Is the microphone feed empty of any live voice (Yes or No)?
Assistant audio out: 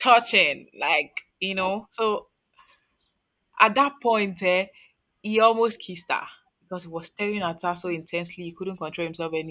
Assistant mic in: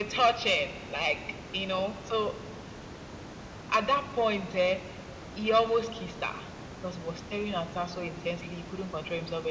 Yes